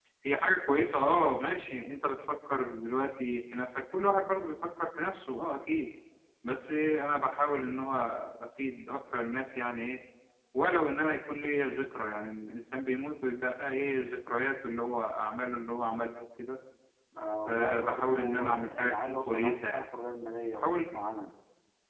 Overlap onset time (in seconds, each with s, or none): 17.4 s